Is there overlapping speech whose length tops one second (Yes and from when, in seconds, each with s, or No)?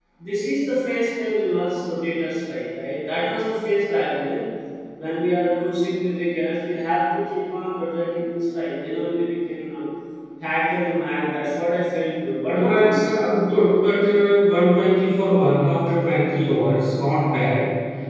No